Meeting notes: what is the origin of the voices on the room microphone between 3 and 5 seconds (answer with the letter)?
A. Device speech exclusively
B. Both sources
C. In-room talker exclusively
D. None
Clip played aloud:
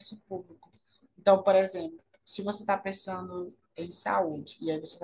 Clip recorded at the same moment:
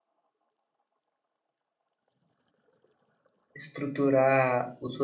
C